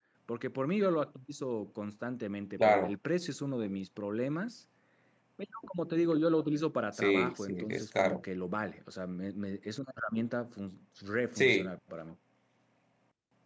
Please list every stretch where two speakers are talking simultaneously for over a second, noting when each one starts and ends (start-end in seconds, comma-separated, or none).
7.0-8.2